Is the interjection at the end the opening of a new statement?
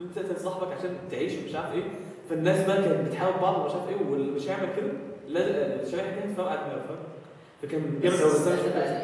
Yes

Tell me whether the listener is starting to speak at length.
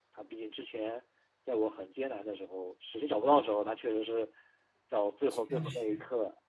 No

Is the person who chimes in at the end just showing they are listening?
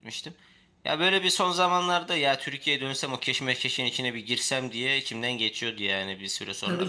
No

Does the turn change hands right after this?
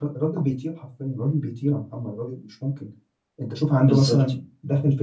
No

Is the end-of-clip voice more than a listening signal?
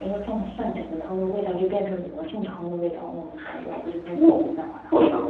Yes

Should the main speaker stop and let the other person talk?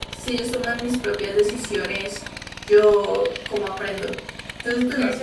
Yes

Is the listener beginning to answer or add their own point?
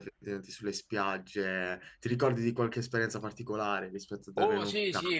Yes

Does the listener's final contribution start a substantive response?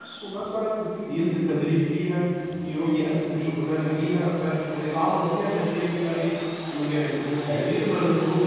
No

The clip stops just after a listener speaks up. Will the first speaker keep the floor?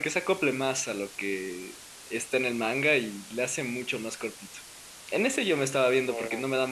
Yes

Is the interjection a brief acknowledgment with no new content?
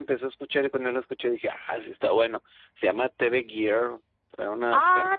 Yes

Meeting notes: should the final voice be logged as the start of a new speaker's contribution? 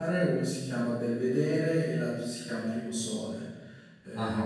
Yes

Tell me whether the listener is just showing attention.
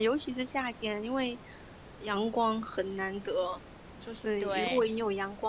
Yes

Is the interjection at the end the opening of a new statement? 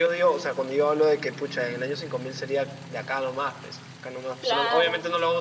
No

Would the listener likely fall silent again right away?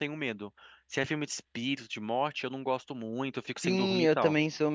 No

